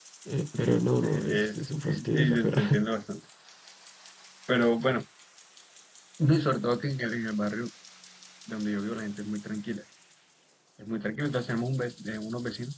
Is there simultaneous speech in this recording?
Yes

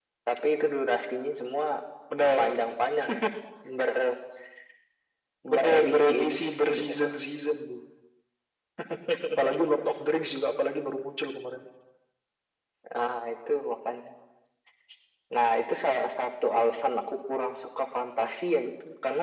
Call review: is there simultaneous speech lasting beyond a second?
Yes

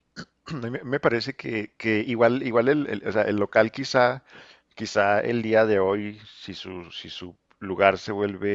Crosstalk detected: No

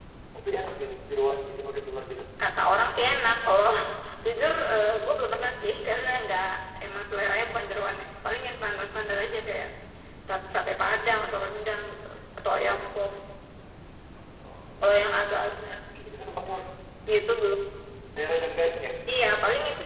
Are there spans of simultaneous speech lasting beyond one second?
No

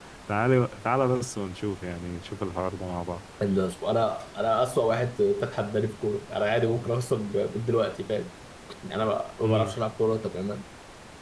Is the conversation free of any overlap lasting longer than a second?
Yes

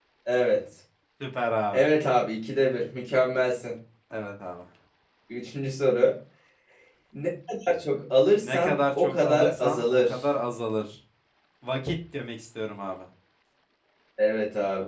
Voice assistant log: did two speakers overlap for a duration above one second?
Yes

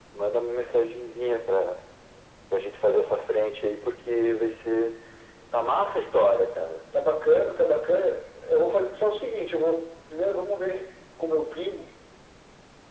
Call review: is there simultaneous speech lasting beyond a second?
No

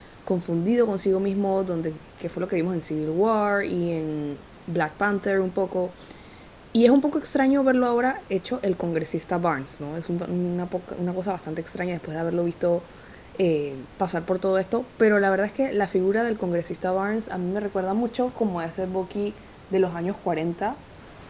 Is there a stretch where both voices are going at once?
No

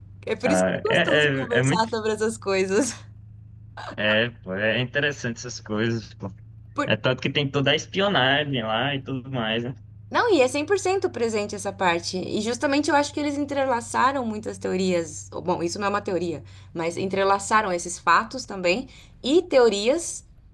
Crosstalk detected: Yes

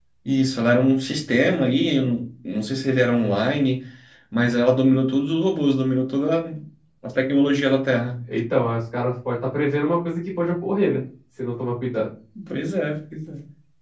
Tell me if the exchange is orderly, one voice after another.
Yes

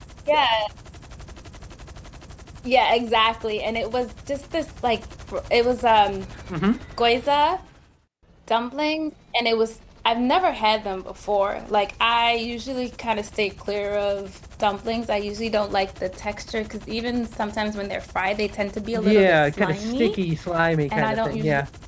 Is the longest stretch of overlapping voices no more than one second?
No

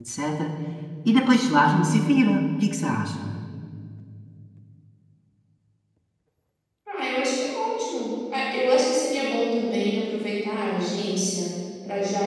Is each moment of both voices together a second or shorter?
Yes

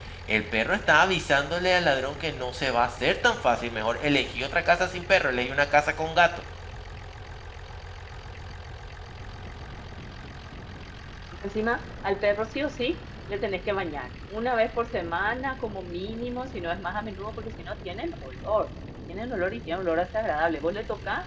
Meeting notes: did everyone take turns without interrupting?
Yes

